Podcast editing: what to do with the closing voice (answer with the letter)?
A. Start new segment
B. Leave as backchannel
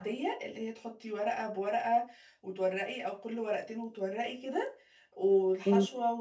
B